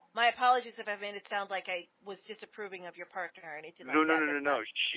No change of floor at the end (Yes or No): No